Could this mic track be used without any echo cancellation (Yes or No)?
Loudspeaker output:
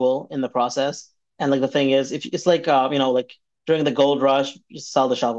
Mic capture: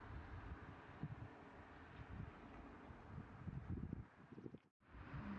Yes